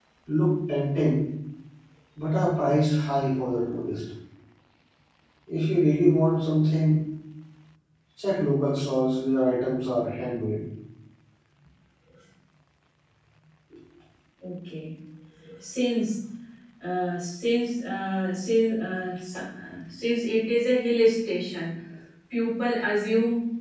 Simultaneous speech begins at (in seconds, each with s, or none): none